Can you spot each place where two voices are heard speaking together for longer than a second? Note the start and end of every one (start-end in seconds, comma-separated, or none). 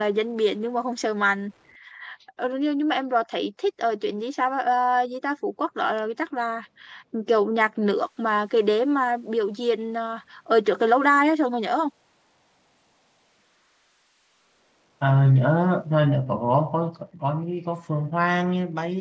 none